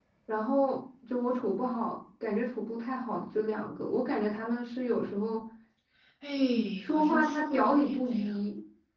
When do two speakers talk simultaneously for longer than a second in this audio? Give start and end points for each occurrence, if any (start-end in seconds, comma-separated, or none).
6.9-8.3